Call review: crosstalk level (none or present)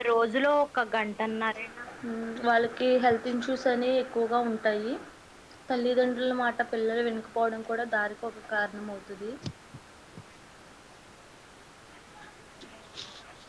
none